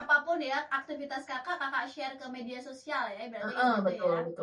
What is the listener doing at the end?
taking over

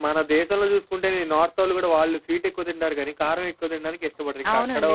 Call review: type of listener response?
taking over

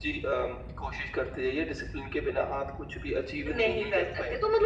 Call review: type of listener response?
taking over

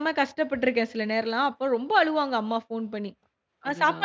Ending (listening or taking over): listening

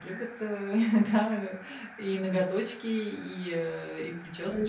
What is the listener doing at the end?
taking over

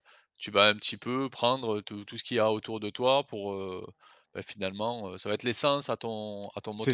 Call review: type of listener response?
taking over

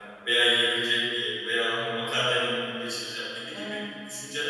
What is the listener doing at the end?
listening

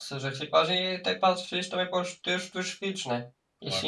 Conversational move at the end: listening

